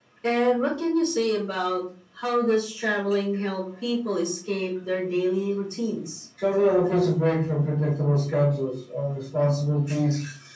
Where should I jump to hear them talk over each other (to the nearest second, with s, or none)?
none